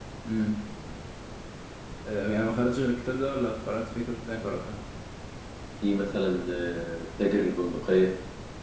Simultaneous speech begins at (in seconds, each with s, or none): none